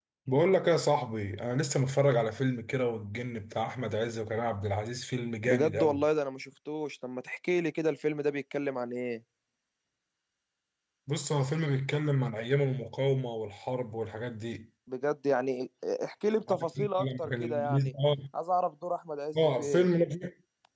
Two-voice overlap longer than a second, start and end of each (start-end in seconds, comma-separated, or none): 16.5-17.9